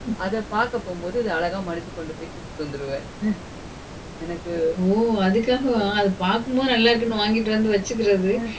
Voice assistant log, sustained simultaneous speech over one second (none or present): none